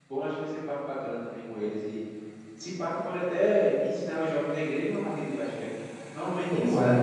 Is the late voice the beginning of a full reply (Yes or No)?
Yes